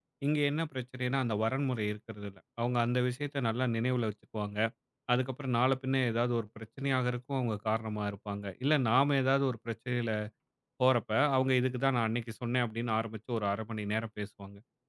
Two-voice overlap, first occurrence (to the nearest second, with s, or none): none